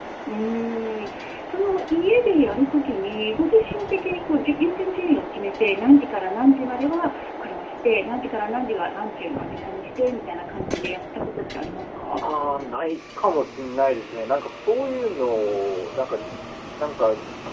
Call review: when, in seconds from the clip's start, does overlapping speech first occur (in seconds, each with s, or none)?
none